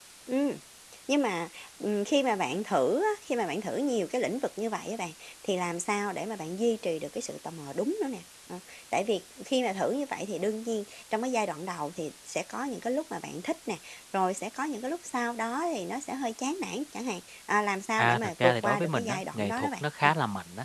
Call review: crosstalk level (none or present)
present